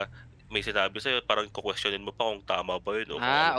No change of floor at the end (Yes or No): No